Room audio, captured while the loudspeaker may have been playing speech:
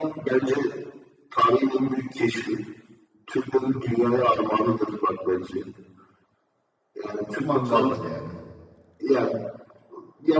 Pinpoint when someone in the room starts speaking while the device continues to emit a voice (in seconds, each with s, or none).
7.4 s